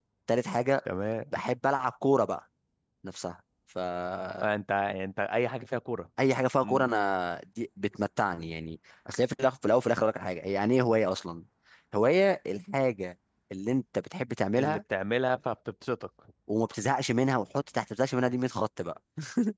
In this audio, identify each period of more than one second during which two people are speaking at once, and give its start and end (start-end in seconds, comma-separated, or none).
none